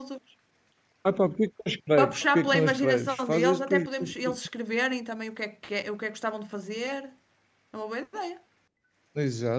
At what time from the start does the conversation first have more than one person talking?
2 s

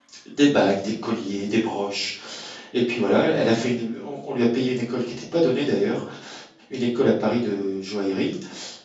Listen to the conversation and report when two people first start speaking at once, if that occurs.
none

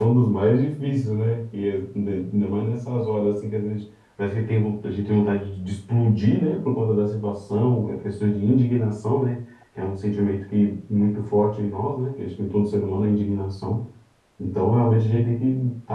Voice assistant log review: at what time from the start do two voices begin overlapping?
none

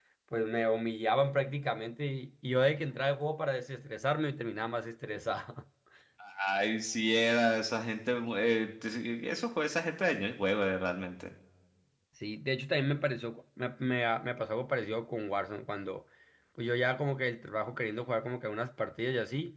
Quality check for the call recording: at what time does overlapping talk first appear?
none

